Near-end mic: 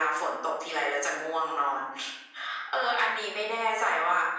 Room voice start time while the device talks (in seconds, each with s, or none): none